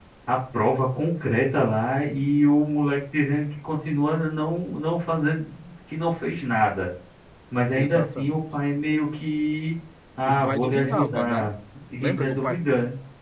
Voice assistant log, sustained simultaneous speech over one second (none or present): present